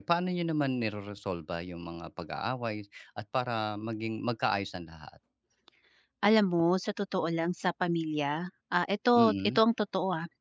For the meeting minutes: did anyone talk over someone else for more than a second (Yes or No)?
No